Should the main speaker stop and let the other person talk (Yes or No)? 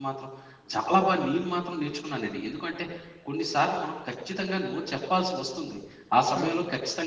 No